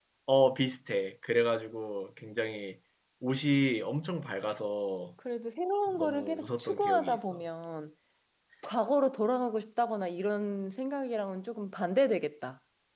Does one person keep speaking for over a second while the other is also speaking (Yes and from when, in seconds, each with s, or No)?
Yes, from 5.9 s